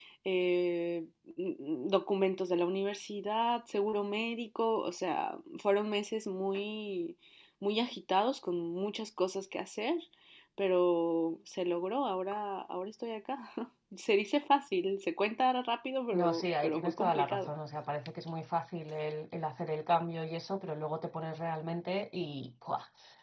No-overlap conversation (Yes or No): No